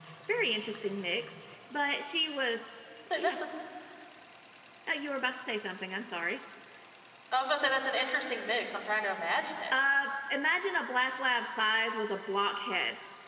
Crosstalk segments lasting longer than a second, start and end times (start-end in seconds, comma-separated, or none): none